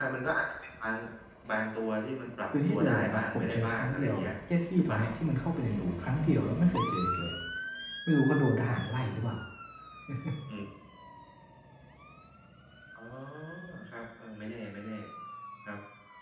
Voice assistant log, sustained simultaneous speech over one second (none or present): present